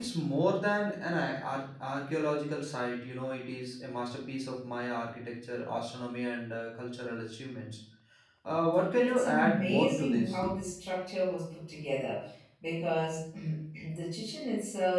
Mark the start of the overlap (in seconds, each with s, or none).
9.0 s